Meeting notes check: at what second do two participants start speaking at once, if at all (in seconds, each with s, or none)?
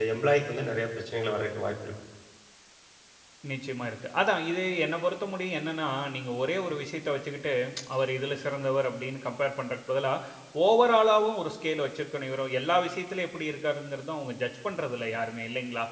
none